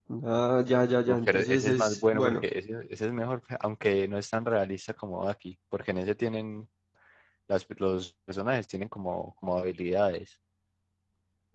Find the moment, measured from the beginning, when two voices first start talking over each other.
1 s

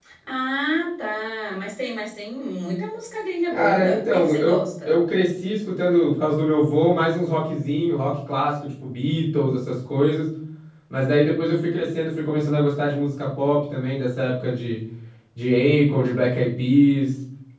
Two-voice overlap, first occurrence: 4 s

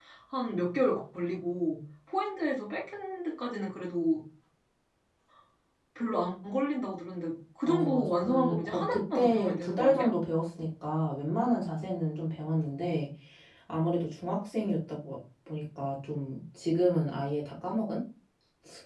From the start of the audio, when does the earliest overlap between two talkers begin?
8 s

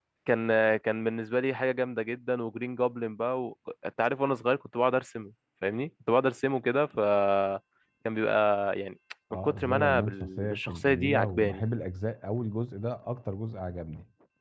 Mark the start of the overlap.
9 s

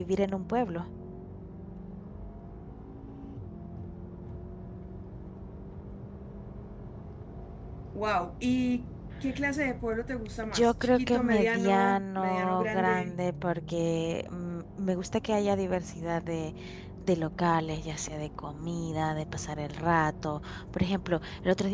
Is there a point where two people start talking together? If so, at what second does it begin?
10 s

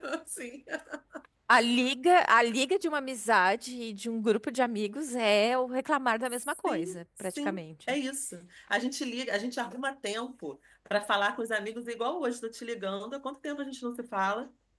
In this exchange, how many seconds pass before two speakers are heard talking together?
6 s

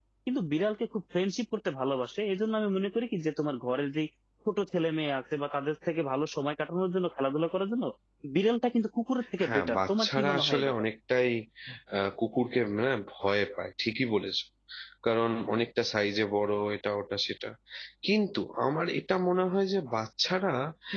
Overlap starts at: 9 s

